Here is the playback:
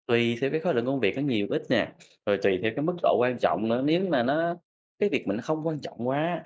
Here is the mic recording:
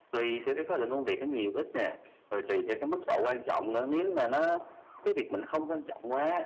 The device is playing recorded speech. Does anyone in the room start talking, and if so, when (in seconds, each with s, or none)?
none